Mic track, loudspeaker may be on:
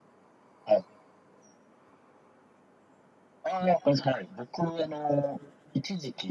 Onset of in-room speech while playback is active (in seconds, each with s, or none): none